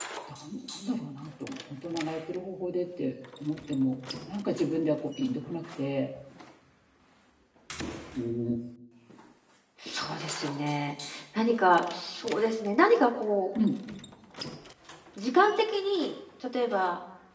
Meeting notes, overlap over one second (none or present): none